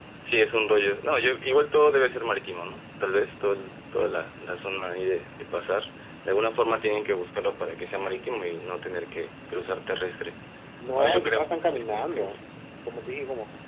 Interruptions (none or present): present